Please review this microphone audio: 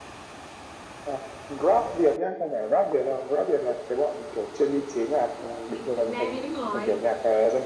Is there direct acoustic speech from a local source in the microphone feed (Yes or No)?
Yes